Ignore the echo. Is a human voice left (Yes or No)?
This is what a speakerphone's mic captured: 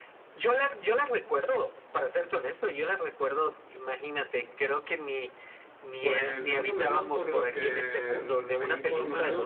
Yes